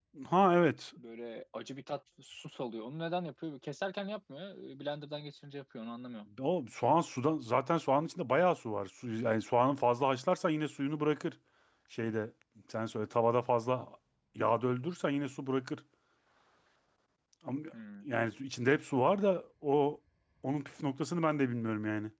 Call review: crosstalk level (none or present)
none